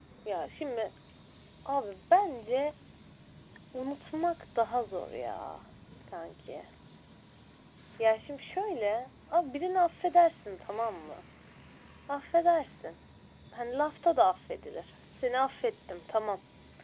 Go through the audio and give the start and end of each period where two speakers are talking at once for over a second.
none

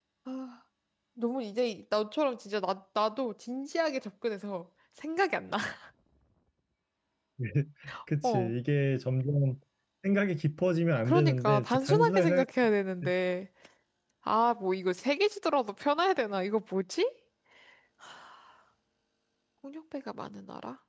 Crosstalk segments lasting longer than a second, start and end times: 11.0-12.4

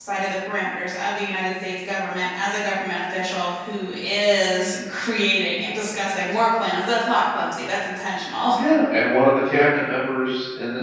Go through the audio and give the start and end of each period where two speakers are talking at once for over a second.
none

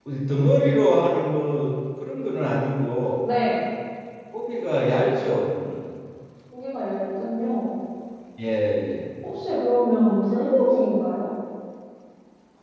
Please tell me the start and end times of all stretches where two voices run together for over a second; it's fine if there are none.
none

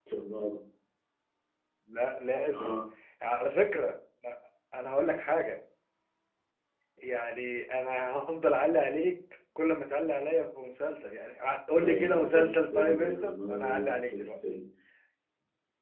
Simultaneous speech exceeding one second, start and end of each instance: 11.8-14.4

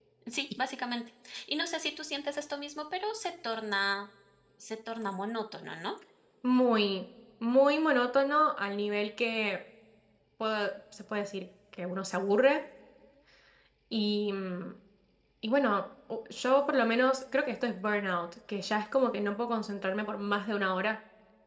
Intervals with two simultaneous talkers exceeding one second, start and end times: none

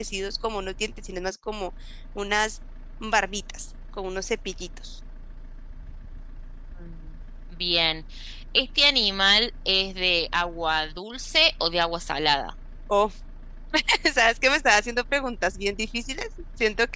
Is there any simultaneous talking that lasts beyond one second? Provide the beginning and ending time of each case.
none

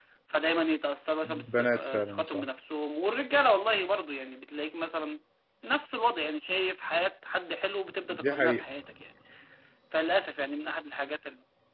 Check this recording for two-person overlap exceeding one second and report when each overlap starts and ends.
1.2-2.5

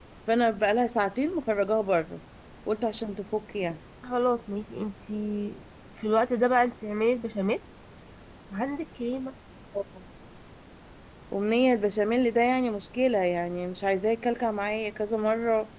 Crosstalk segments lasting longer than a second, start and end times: none

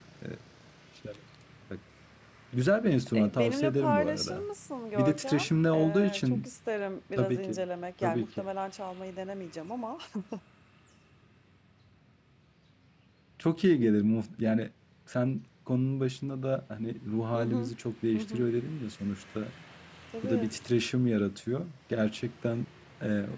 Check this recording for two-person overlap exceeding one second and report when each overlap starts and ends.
3.1-4.4, 5.0-6.5

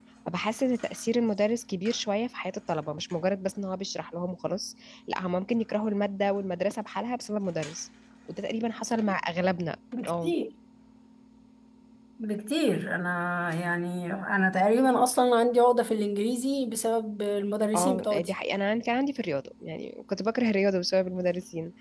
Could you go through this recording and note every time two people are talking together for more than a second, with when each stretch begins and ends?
none

